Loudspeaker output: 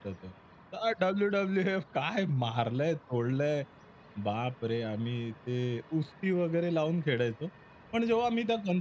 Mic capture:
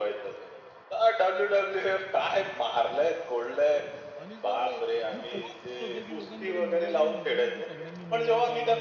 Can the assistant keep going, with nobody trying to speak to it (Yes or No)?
No